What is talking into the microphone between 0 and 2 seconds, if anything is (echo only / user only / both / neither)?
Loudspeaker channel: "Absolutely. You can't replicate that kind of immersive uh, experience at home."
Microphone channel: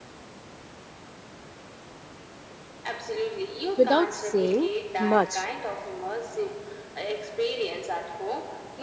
neither